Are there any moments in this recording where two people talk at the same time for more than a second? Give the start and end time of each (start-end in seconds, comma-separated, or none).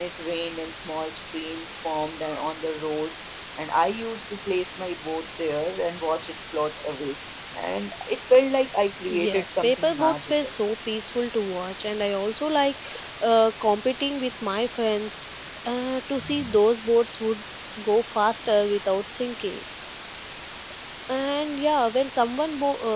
9.1-10.3